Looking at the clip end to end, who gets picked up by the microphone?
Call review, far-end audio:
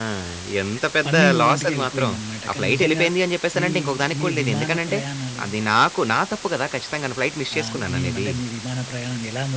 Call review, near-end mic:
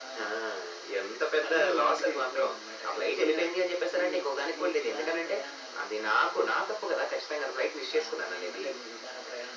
echo only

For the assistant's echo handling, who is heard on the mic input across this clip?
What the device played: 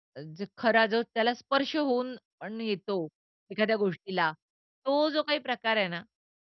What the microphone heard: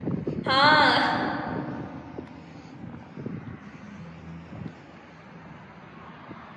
user only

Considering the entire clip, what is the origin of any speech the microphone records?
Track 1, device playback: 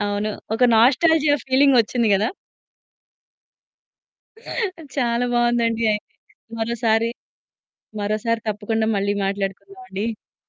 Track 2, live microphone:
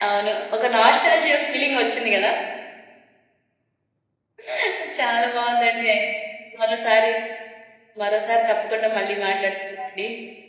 echo only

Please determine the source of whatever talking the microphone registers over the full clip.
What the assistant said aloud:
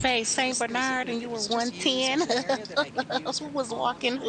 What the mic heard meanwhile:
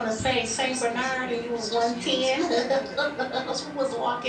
echo only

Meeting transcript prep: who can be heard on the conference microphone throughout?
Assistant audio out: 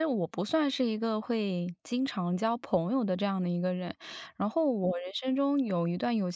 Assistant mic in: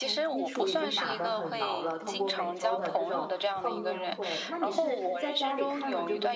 both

